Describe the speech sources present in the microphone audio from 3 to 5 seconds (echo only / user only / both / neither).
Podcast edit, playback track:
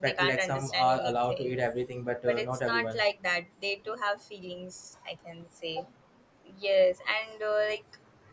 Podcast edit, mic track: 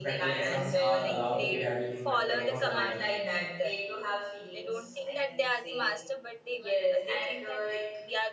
both